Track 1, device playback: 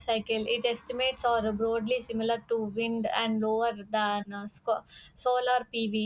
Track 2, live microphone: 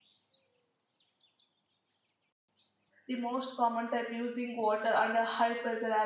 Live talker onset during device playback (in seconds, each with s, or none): 3.0 s